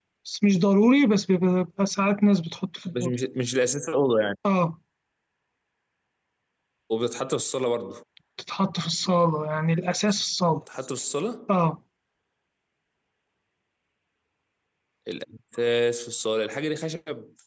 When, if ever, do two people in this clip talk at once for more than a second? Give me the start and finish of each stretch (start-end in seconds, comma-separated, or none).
none